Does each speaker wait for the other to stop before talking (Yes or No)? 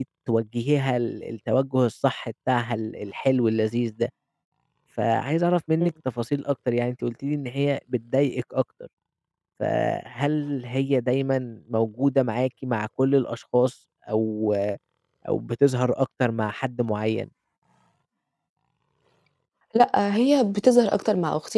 Yes